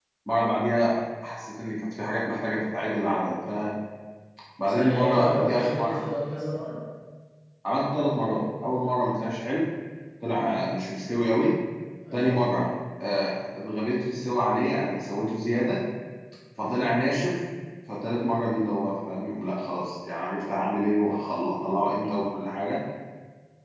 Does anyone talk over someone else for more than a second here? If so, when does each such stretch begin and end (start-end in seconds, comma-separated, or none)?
4.7-6.0